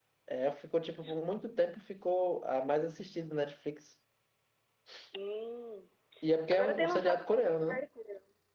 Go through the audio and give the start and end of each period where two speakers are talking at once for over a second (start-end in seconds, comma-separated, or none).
6.5-7.8